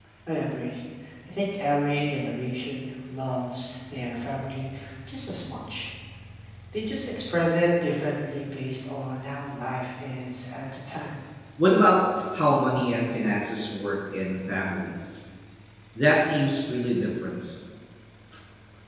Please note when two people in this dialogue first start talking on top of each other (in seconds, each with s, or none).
none